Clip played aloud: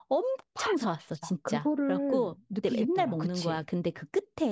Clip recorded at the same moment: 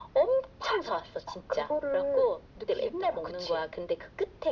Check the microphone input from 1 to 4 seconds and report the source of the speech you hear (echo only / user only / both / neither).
echo only